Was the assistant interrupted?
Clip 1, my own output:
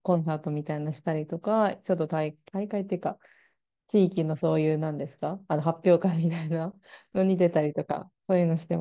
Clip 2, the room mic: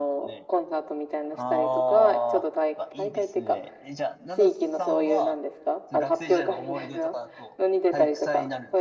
Yes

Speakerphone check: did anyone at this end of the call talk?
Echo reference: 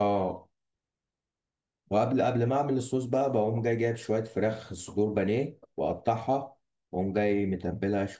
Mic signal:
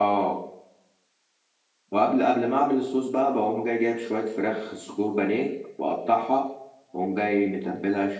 No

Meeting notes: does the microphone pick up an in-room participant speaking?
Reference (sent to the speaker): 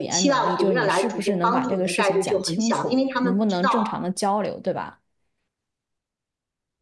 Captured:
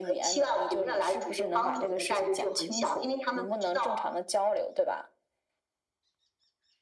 No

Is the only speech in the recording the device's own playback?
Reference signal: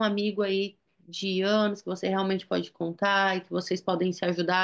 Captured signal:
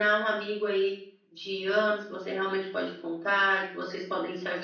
Yes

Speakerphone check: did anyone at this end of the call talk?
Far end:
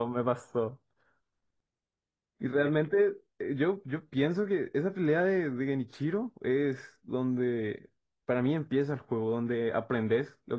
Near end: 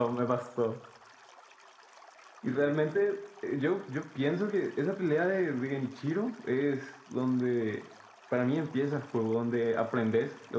No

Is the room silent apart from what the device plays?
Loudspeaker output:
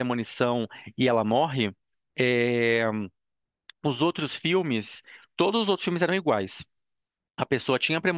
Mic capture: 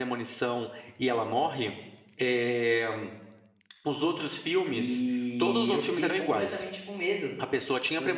No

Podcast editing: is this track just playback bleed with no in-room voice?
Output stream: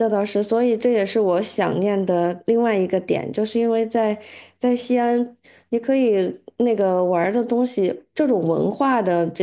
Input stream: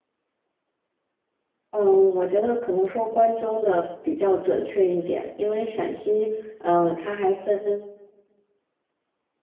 No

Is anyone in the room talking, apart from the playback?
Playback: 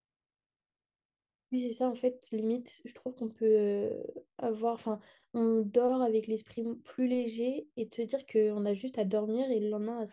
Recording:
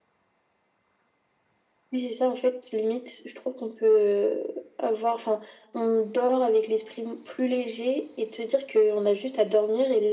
No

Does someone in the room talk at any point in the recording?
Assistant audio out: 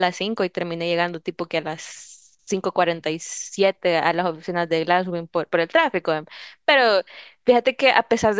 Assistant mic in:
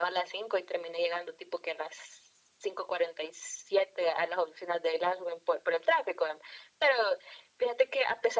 No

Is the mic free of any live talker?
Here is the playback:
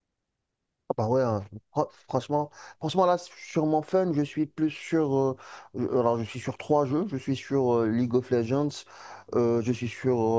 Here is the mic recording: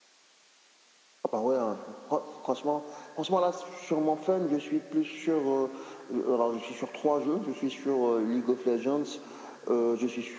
Yes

